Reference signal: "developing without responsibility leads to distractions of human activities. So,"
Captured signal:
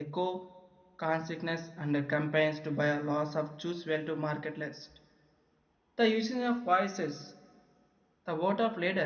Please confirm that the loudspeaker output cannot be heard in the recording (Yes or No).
Yes